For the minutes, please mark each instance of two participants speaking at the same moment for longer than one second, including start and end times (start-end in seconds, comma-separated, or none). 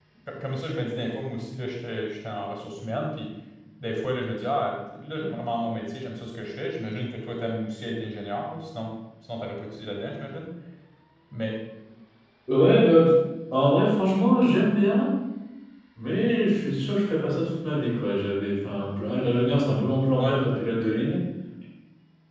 none